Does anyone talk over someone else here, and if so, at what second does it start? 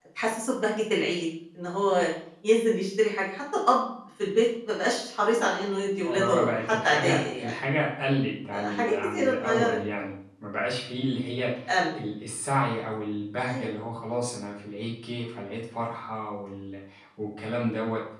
6.1 s

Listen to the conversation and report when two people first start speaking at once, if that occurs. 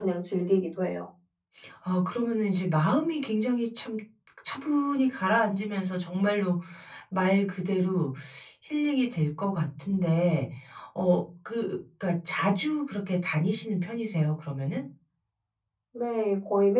none

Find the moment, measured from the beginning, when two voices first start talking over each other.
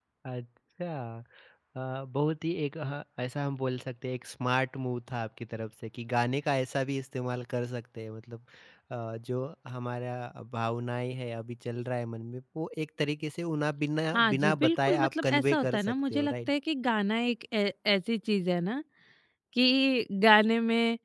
14.1 s

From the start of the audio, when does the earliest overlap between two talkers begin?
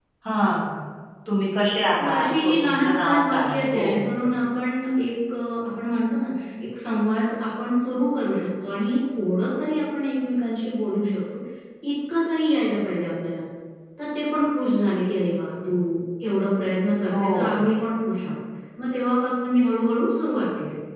2.0 s

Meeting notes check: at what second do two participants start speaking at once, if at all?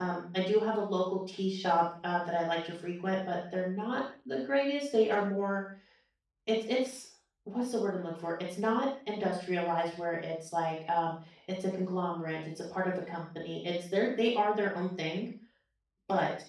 none

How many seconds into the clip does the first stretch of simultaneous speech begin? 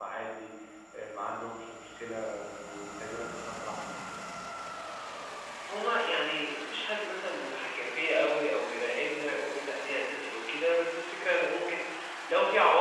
none

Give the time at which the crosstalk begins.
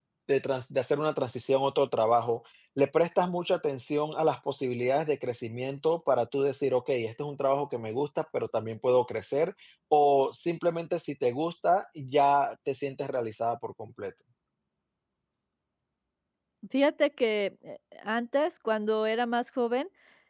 none

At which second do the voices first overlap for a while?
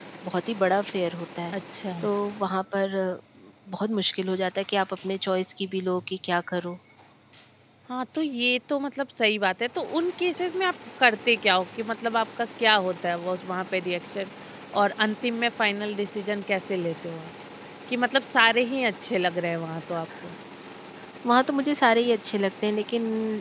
none

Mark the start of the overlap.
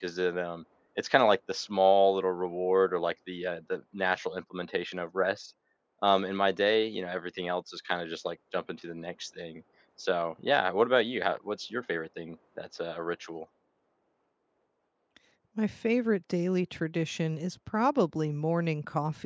none

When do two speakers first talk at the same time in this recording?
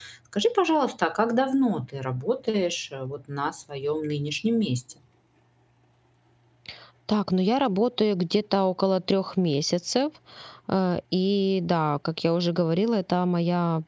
none

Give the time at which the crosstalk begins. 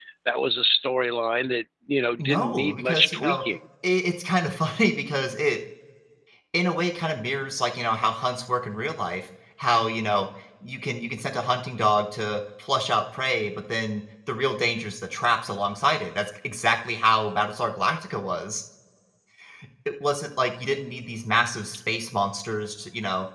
2.2 s

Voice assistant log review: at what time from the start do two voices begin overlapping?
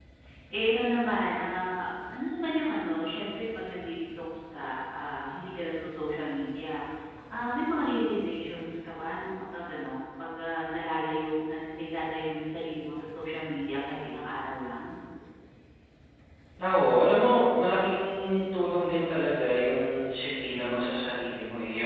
none

